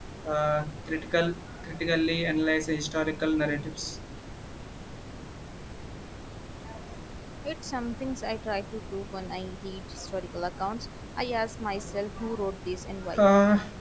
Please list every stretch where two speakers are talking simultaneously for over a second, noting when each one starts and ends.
none

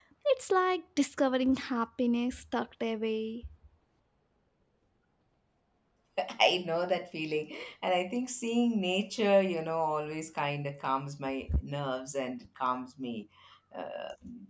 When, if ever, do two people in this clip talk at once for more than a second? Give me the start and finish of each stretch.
none

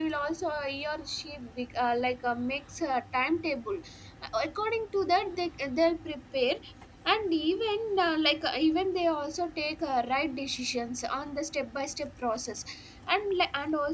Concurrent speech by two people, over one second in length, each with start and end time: none

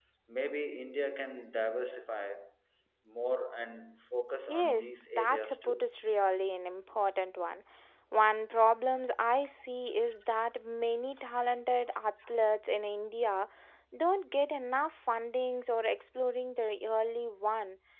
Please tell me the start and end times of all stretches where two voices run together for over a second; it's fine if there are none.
4.5-5.8

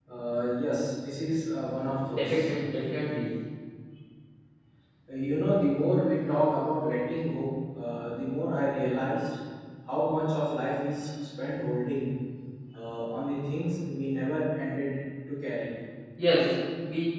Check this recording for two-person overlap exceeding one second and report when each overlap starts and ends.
none

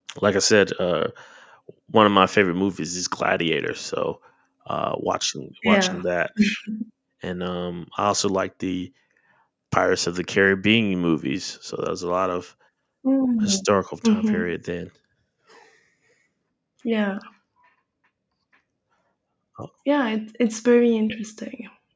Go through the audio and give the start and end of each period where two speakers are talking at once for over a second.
none

